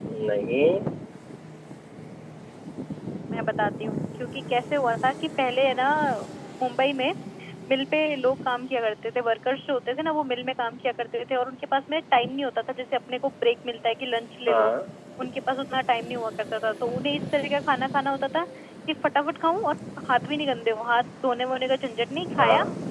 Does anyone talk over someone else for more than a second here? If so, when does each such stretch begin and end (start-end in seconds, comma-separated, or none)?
none